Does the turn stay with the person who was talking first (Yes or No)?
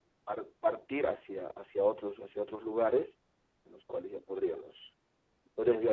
Yes